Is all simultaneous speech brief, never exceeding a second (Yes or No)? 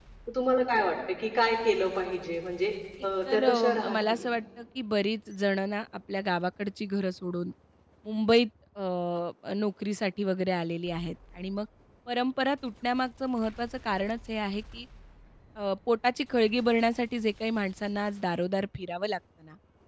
No